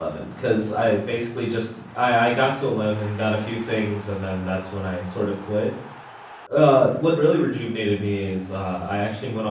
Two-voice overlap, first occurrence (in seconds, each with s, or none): none